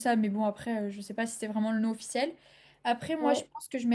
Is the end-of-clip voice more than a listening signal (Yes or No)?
No